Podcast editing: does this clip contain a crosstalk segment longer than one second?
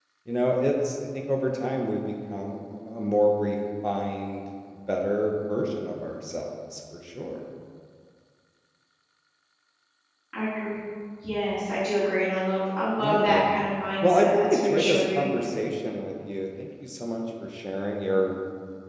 Yes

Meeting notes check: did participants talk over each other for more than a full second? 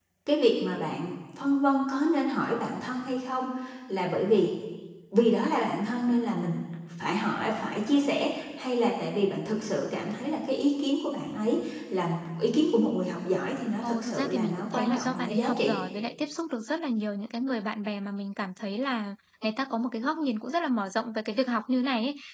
Yes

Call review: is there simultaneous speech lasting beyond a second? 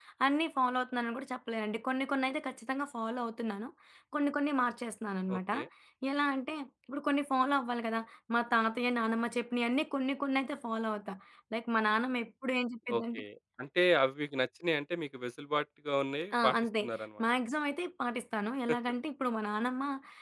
No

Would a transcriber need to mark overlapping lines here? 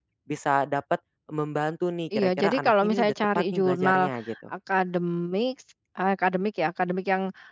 Yes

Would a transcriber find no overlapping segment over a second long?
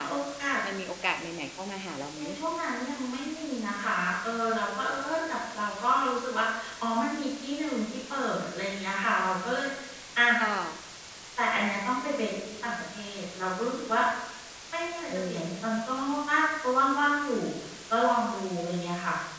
Yes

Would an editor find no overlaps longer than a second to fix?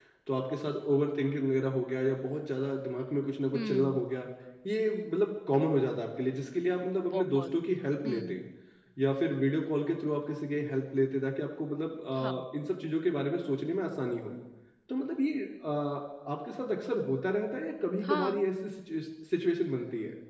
Yes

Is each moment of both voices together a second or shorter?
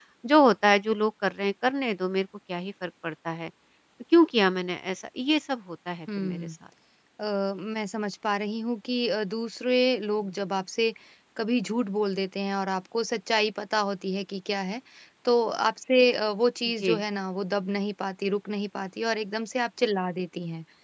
Yes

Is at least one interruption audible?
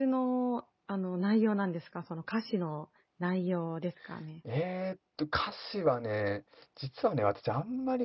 No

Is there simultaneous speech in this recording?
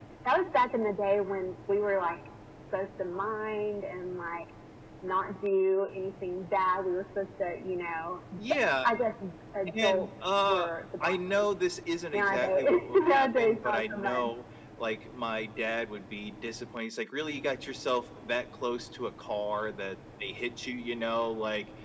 Yes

